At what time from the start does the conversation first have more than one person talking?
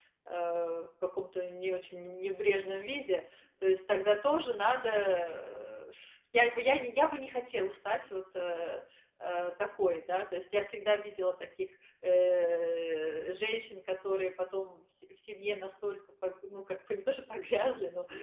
none

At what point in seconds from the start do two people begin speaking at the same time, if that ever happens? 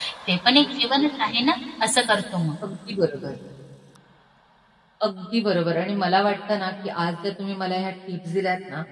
none

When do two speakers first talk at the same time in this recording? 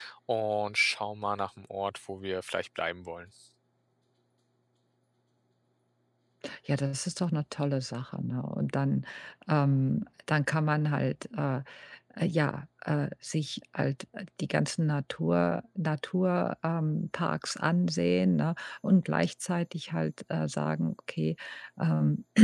none

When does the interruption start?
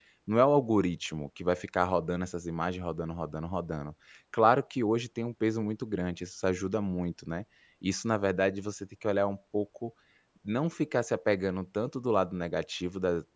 none

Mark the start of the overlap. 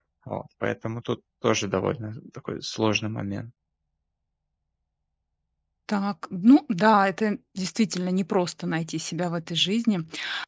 none

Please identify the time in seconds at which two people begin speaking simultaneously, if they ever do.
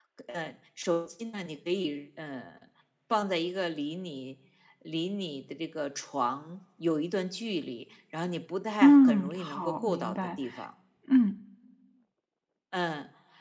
8.8 s

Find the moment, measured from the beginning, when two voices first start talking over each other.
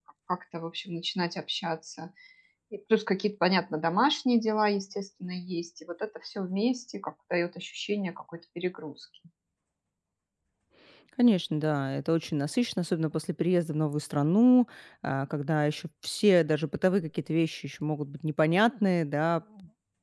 none

